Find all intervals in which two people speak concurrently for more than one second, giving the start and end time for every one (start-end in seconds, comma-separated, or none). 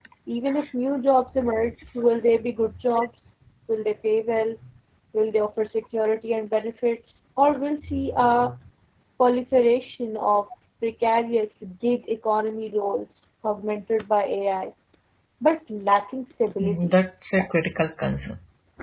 none